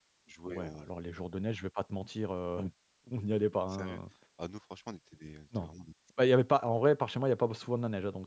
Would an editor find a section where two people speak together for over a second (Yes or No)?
No